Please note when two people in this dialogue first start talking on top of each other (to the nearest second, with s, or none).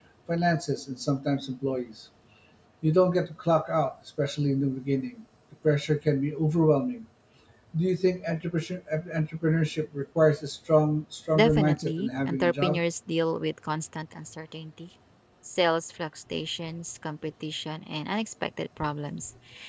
11 s